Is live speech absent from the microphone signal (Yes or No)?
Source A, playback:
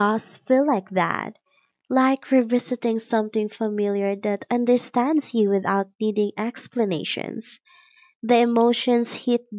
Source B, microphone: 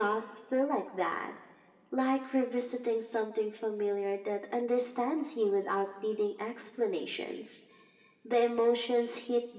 Yes